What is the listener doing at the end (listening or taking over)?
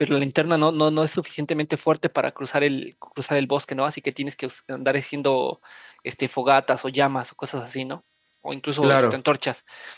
listening